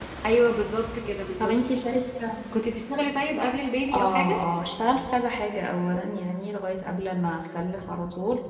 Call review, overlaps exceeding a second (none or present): none